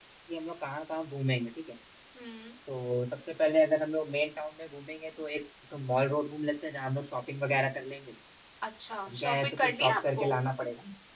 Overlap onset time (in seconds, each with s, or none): 9.1 s